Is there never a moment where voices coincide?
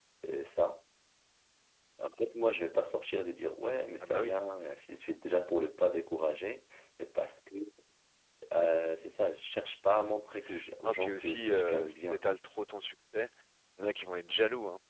No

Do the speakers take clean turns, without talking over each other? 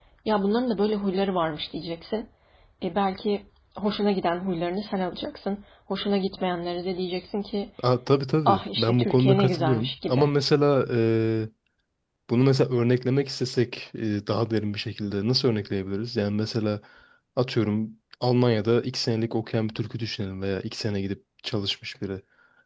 No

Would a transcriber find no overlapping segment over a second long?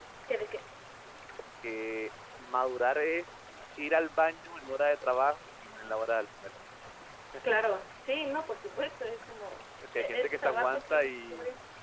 No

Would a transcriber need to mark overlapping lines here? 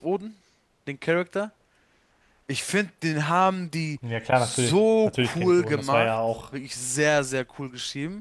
Yes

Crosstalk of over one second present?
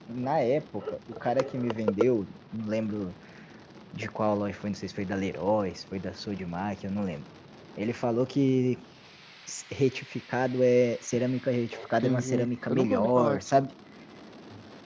Yes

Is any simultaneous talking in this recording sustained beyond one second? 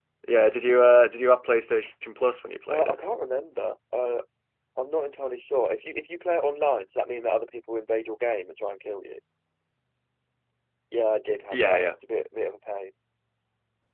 No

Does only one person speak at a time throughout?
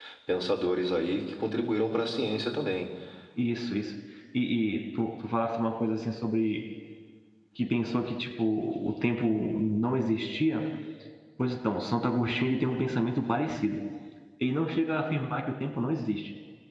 Yes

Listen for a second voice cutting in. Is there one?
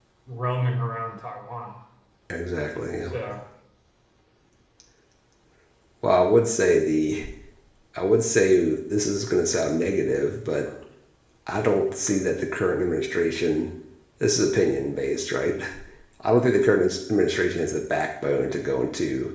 No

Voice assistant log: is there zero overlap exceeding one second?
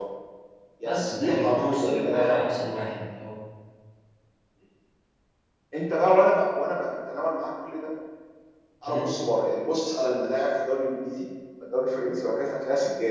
No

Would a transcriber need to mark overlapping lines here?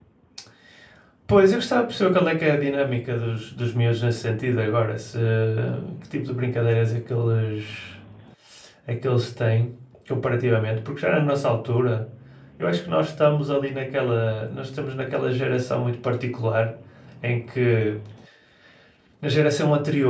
No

